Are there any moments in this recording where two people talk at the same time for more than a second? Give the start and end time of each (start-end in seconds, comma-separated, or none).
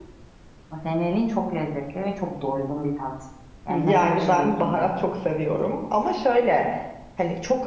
3.7-4.9